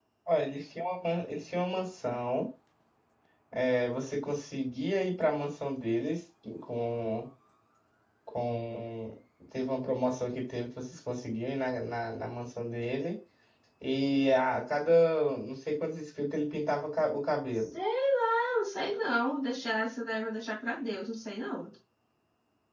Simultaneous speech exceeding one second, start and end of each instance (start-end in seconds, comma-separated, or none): none